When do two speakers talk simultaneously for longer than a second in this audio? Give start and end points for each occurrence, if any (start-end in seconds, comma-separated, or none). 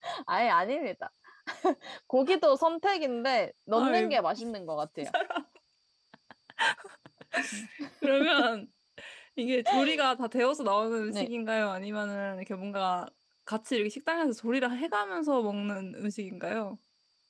none